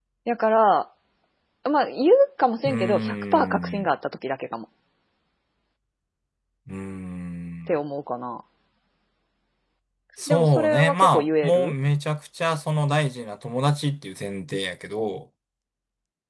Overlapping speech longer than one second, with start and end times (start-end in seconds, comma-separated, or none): 2.6-3.9, 10.3-11.7